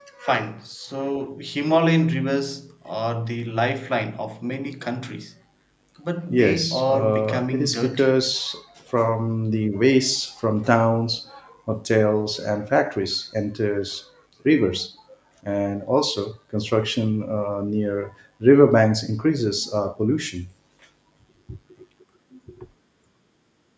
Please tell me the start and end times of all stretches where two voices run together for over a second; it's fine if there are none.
6.3-8.1

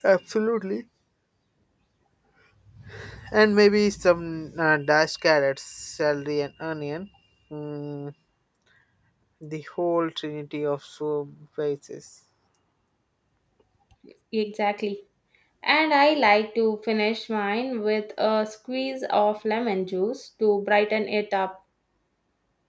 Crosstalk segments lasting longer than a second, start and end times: none

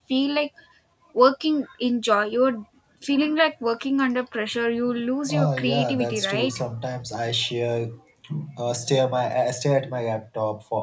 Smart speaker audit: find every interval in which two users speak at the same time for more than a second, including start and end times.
5.3-6.6

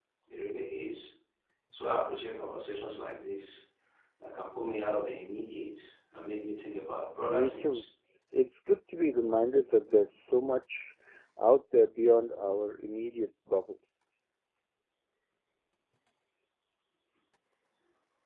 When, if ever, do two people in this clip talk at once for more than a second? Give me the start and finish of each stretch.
none

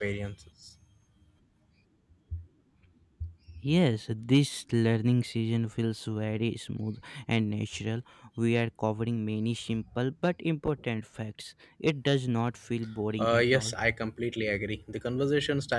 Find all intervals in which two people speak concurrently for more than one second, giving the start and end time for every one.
none

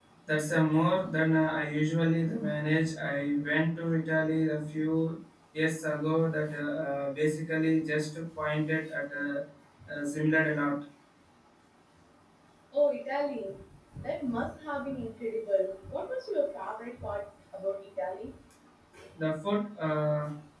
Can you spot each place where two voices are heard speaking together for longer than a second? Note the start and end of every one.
none

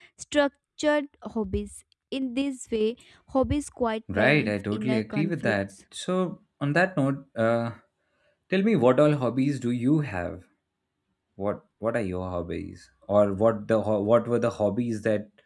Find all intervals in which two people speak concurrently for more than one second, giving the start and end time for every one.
4.1-5.6

